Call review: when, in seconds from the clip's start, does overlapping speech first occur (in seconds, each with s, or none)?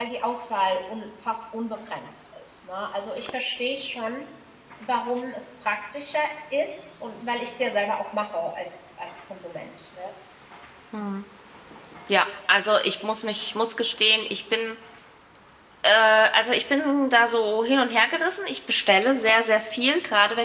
none